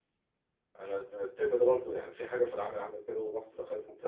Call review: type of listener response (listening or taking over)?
listening